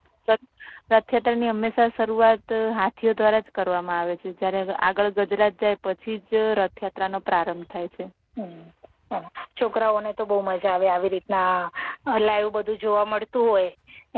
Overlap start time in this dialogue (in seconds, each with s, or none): none